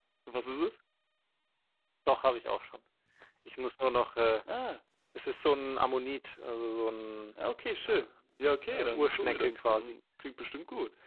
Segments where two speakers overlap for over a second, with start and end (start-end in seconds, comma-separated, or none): 8.7-10.0